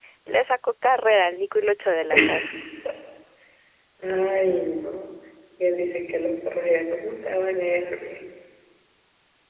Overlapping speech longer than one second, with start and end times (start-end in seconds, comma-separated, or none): none